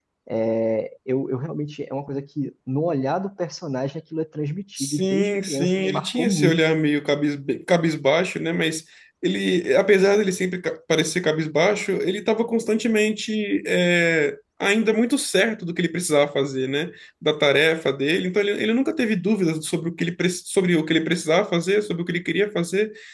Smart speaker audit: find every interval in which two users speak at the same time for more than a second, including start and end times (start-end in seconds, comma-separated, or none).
4.8-6.6